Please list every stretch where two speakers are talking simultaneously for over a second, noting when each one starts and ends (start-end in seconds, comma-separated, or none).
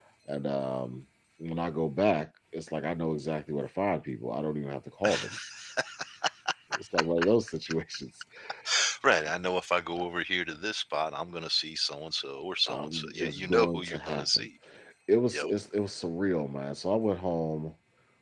12.7-14.5